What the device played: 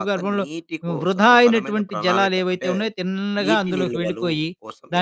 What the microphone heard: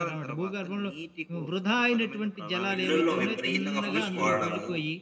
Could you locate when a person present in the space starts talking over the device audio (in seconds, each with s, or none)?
2.7 s